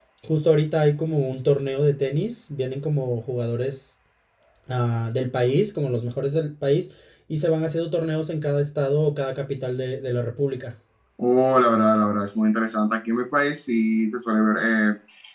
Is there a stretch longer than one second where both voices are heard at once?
No

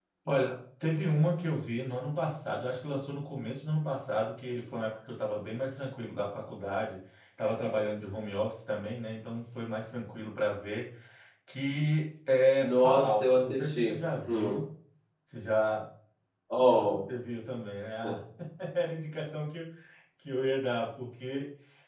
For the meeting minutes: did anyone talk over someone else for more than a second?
Yes, from 12.6 s

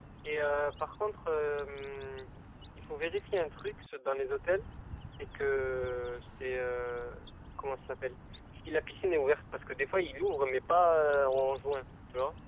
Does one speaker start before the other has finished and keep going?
No

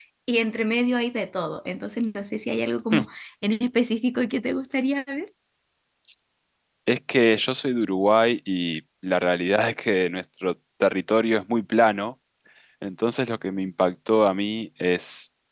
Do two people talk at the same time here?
No

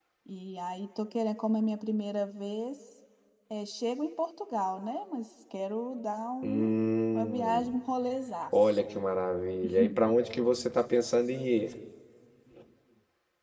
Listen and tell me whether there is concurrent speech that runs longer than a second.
No

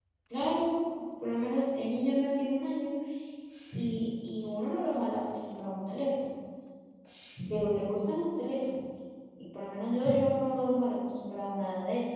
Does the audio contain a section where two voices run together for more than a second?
No

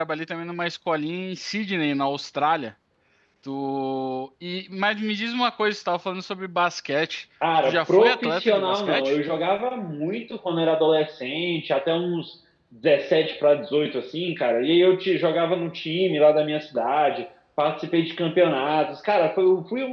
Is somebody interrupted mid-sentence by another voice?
Yes, from 7.4 s

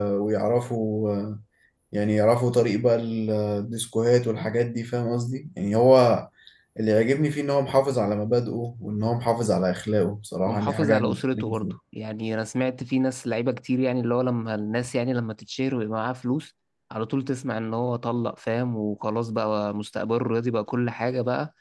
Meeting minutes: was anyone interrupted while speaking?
Yes, from 10.5 s

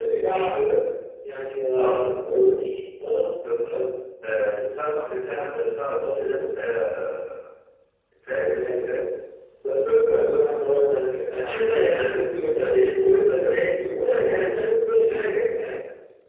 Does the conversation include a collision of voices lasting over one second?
No

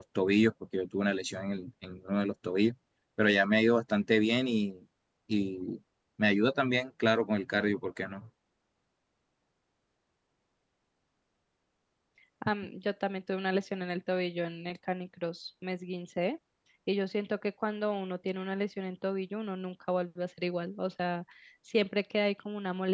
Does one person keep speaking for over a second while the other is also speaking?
No

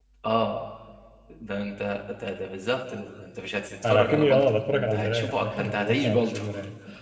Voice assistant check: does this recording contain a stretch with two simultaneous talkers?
Yes, from 3.8 s

